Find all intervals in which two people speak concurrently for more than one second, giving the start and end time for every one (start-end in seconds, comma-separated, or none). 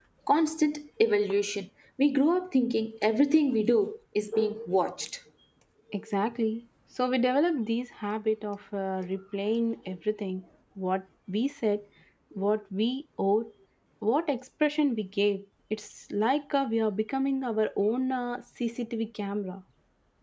none